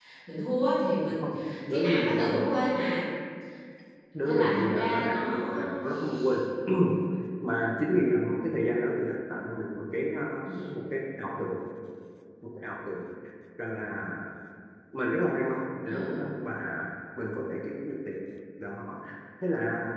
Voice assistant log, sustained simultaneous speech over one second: present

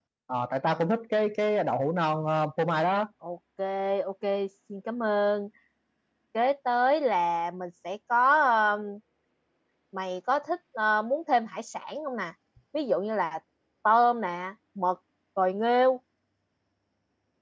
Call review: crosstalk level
none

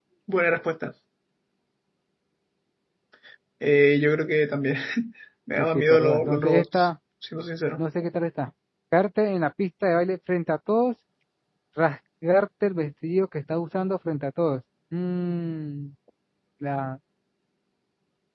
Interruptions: present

